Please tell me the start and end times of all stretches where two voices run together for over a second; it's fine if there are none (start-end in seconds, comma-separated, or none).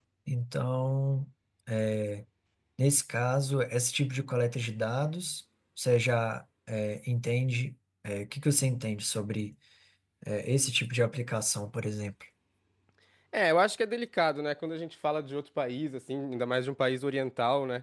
none